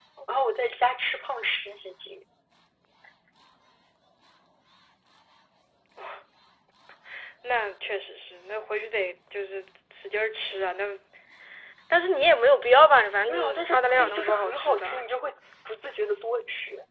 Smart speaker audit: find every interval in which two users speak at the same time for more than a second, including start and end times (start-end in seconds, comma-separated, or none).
13.3-15.0